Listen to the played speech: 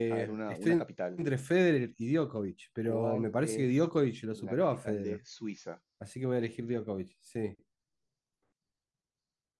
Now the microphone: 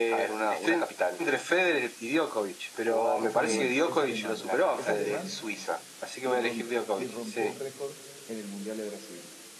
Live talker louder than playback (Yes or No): No